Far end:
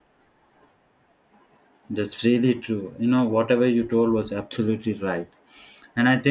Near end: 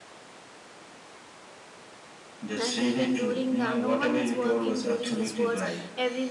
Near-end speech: present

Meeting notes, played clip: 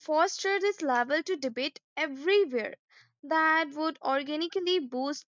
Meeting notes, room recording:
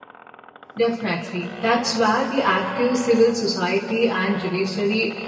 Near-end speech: present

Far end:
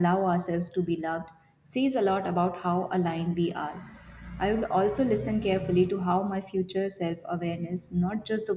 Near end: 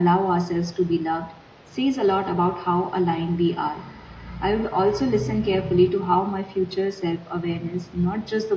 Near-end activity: none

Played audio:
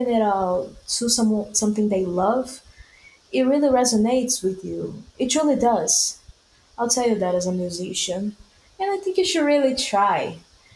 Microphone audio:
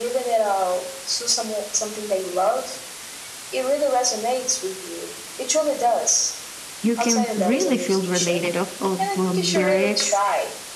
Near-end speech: present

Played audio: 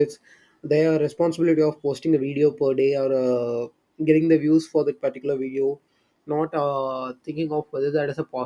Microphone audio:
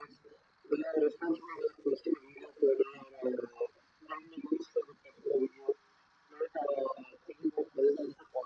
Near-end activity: none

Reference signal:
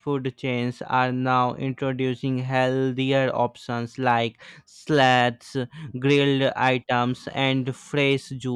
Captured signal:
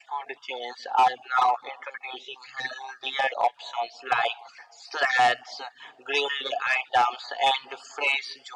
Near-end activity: none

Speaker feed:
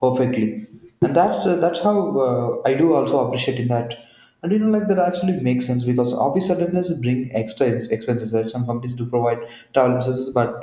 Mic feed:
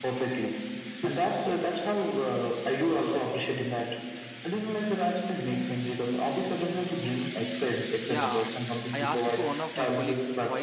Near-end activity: present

